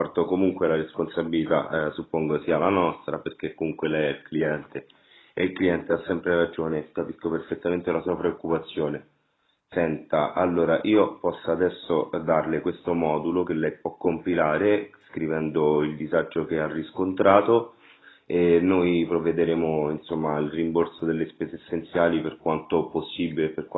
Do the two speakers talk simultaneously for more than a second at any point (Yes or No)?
No